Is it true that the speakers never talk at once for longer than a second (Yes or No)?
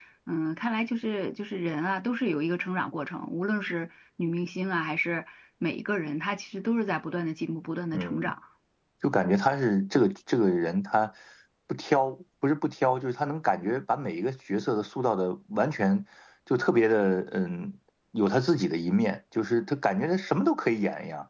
Yes